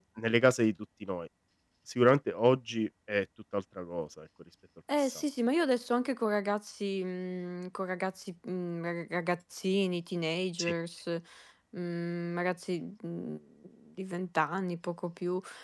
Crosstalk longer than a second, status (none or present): none